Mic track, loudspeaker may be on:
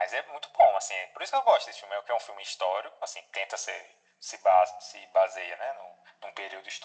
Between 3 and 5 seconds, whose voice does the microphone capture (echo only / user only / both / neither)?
echo only